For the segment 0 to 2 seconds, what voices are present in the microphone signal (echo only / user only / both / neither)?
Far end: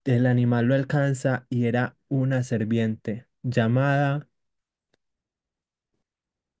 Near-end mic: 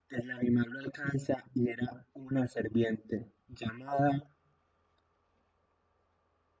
echo only